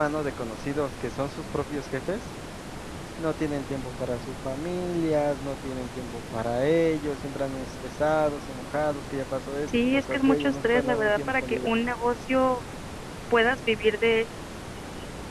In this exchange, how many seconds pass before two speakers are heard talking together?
10 s

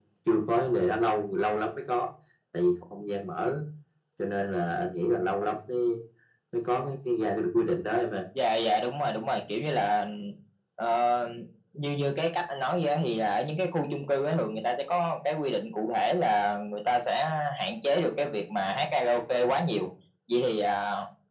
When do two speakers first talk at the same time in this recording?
none

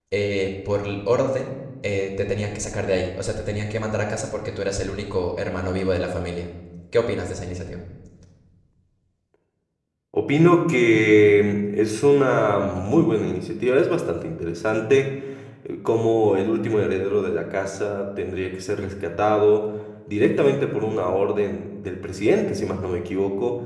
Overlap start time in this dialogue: none

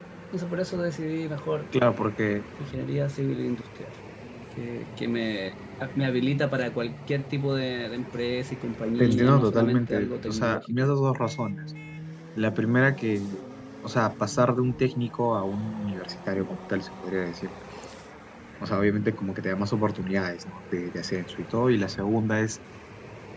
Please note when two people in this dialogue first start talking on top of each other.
9 s

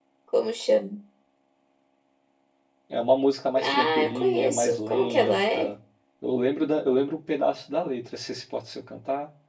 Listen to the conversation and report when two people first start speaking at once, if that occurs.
4 s

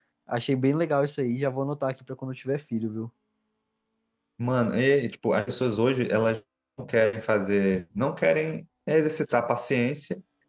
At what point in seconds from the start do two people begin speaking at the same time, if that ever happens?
none

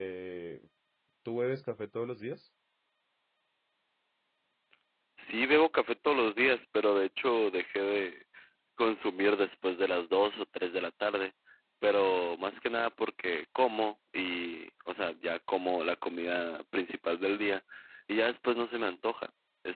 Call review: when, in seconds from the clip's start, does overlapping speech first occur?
none

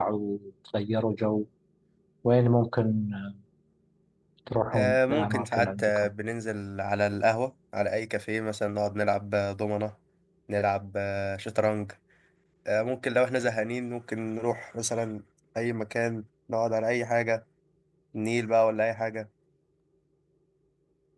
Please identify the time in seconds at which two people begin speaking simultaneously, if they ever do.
5 s

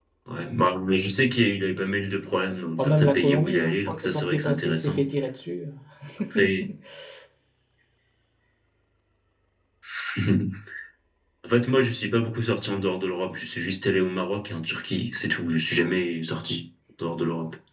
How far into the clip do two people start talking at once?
3 s

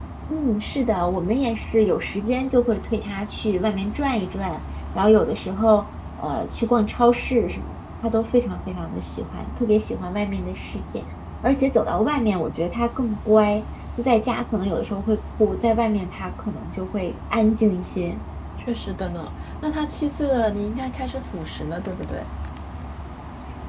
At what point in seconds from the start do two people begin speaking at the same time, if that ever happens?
none

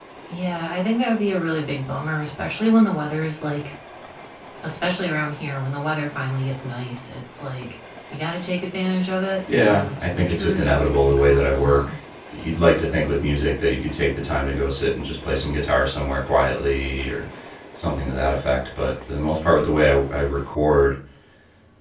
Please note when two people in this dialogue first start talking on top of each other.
9 s

